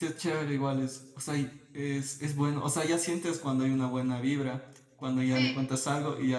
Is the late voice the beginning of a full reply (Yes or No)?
No